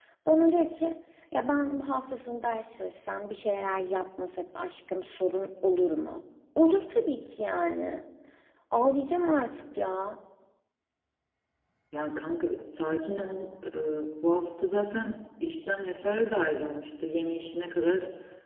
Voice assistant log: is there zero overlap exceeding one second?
Yes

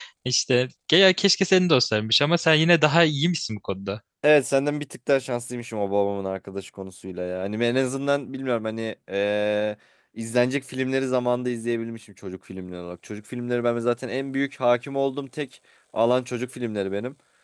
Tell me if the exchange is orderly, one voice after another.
Yes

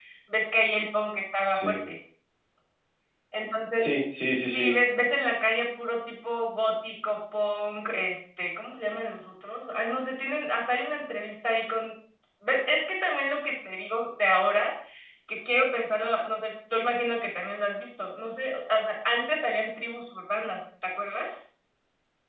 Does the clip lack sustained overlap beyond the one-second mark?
Yes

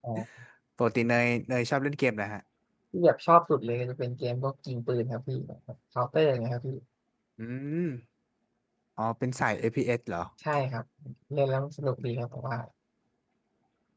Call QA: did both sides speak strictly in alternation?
Yes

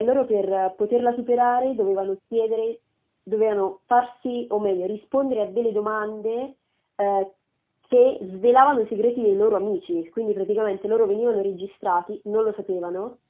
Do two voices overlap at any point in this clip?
No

